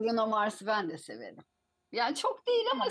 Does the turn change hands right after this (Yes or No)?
Yes